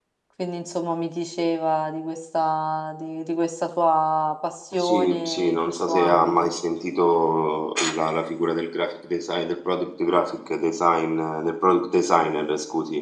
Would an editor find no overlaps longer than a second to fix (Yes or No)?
No